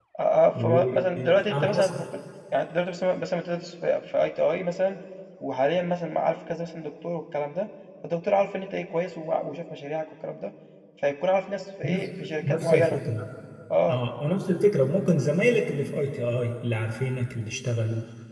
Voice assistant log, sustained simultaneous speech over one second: present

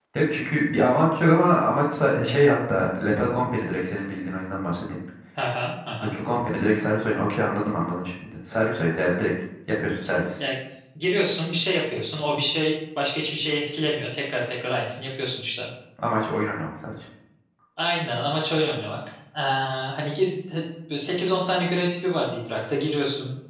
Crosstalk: none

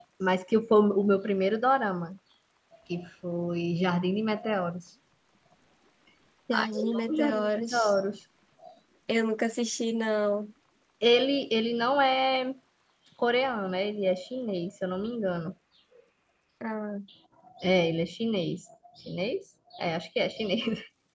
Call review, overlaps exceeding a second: present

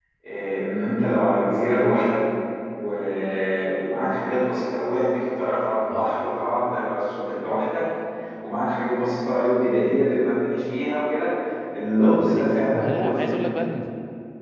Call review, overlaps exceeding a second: present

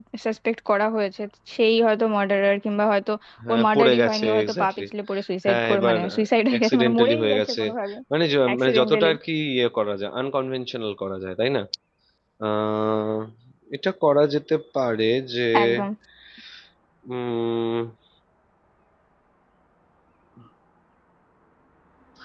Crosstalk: present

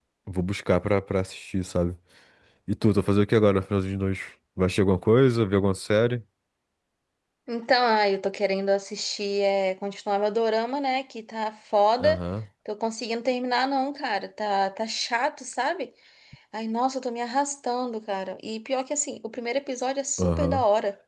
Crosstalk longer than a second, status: none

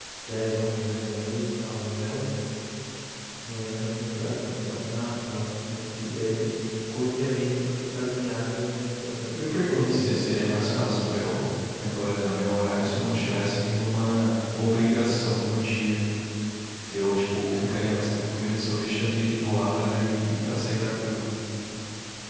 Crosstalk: present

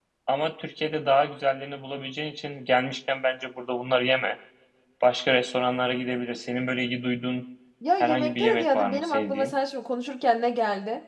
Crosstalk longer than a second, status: present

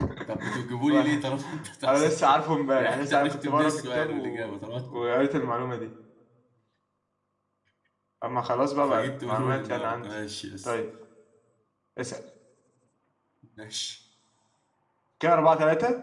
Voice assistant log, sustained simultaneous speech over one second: present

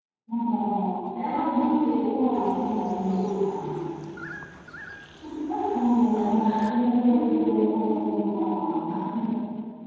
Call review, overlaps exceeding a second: present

